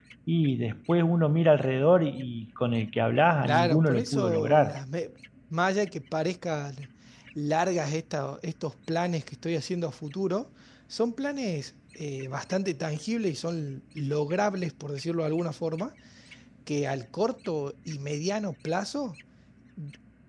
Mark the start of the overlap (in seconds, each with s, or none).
3.4 s